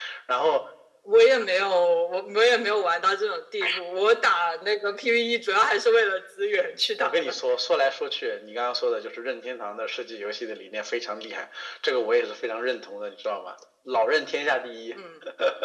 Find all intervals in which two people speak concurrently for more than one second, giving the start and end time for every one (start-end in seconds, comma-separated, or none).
none